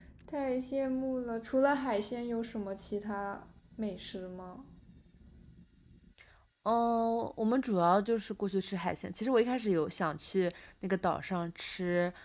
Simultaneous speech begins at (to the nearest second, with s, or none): none